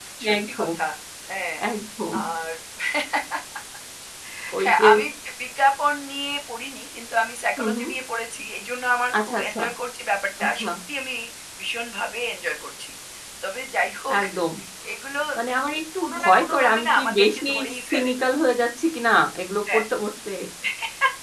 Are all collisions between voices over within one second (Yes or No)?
No